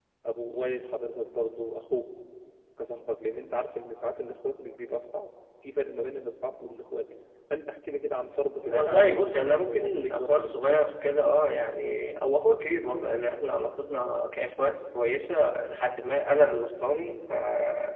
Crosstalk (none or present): present